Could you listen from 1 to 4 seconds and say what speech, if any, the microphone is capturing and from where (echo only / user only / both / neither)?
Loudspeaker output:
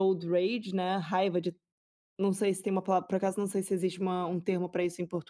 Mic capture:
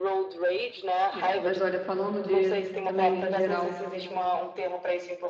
both